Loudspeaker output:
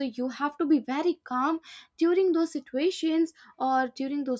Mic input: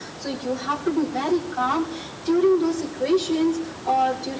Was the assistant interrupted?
No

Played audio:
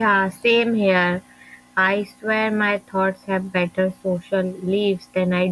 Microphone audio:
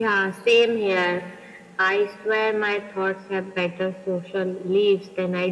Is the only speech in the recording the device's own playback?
Yes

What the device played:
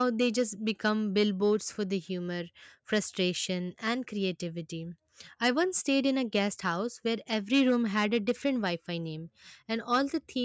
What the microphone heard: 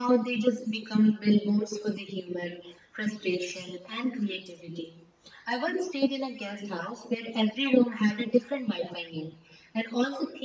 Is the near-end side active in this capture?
No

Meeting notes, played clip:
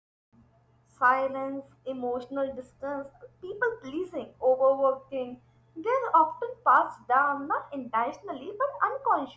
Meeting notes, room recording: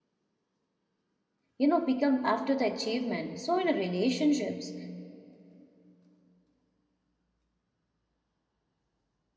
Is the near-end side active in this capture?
Yes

